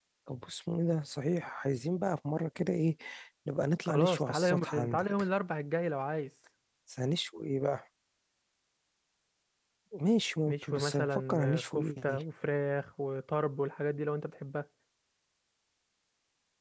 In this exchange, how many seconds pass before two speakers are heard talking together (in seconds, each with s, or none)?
3.9 s